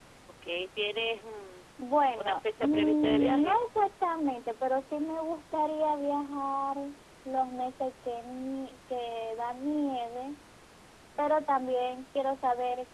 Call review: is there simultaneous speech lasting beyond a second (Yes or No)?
Yes